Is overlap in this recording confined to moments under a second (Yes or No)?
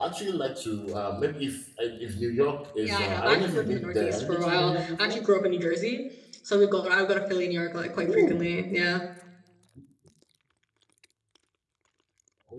No